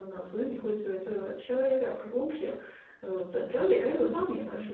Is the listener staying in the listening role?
No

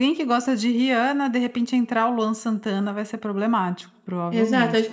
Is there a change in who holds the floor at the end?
Yes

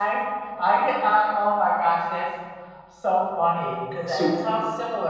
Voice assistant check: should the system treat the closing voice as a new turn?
No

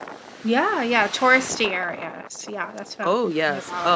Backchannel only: No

